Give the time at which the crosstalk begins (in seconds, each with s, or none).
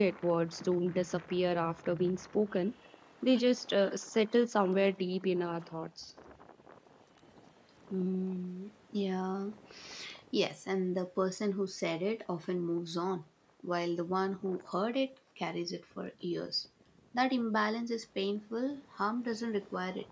none